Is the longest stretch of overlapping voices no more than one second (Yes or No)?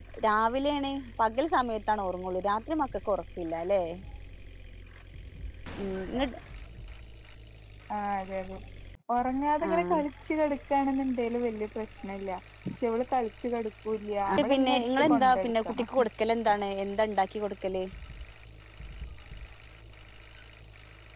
No